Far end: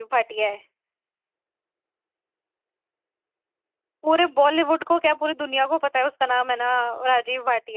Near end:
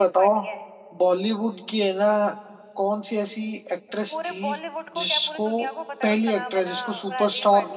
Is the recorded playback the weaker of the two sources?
Yes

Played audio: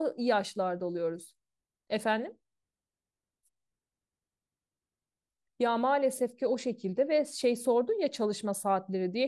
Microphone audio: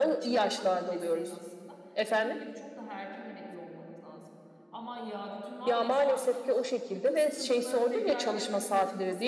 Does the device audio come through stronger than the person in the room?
Yes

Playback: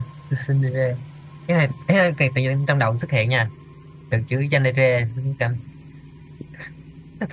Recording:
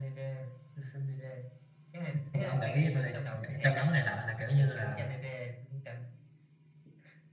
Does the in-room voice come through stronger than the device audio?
Yes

